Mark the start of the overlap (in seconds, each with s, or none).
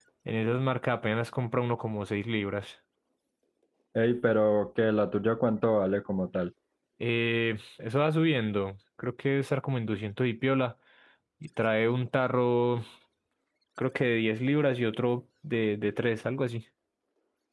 none